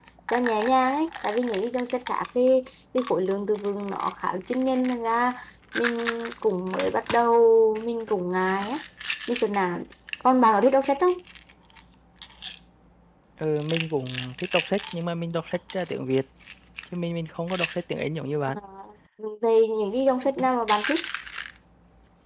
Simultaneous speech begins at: none

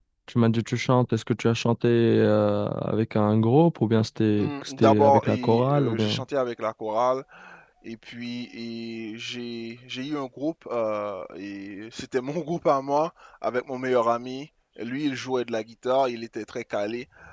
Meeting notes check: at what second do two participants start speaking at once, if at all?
4 s

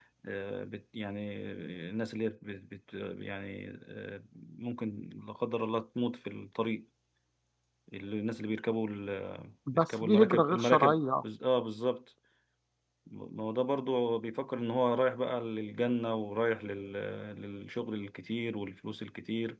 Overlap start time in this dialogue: 10 s

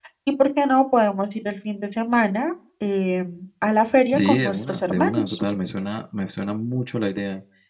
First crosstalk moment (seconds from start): 4 s

